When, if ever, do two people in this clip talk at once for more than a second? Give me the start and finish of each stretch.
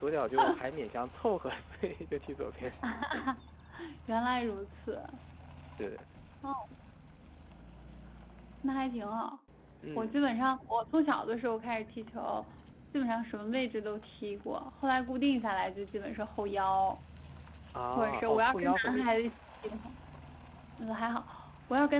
17.9-19.2

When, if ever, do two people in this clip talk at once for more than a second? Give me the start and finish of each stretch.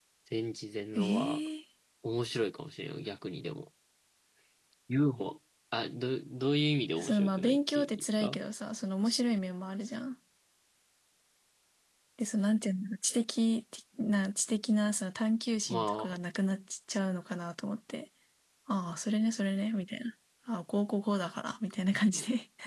7.0-8.4

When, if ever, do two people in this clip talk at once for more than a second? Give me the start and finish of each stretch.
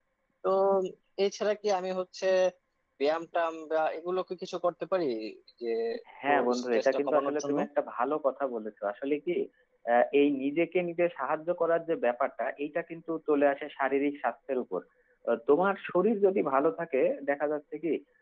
6.3-7.6

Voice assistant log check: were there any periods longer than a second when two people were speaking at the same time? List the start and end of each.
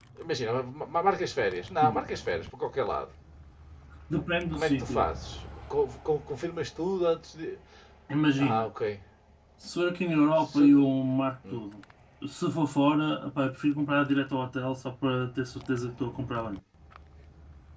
none

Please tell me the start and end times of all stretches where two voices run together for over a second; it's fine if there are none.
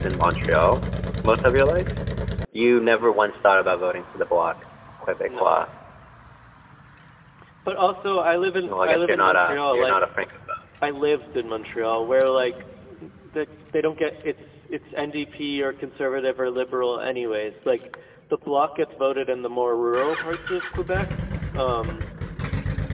8.7-10.0

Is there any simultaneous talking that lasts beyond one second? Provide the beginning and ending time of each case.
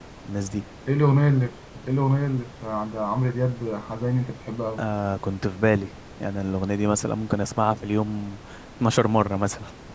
none

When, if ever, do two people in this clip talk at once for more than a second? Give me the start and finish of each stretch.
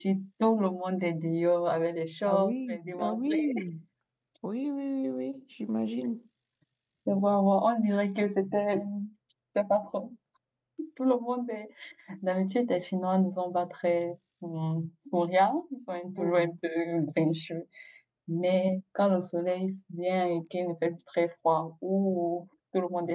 2.3-3.5

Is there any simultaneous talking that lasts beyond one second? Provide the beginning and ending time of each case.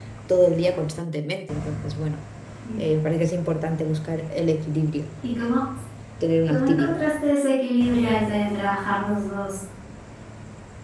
none

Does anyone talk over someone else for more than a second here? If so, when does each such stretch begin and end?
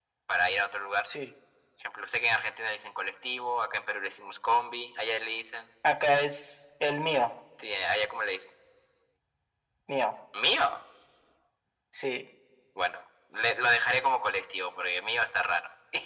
none

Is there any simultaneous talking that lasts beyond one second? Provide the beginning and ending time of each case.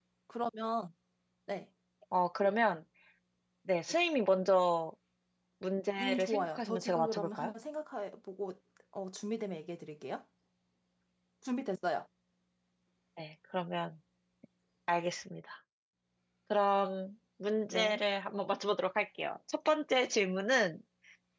6.0-7.5

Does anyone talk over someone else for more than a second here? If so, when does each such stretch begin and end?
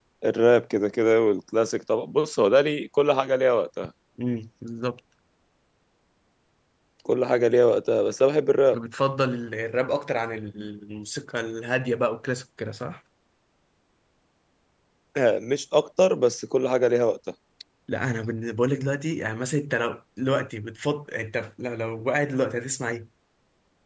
none

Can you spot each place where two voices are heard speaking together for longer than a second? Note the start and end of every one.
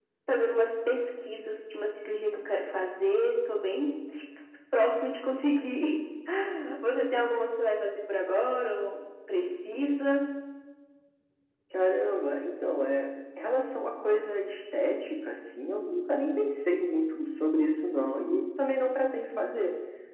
none

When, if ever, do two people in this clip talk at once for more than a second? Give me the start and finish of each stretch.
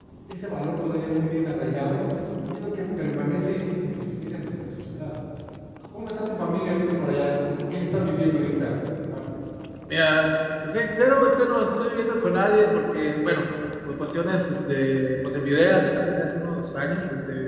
none

